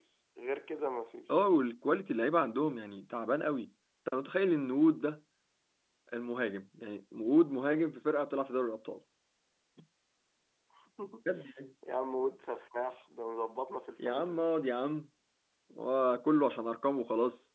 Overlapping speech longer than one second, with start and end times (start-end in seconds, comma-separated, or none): none